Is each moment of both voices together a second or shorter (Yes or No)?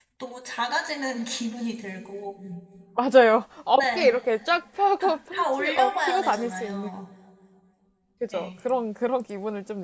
No